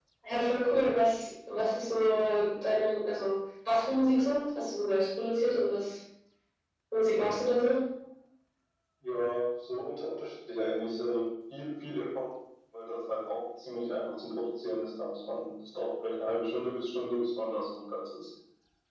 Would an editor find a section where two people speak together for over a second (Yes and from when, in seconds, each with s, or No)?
No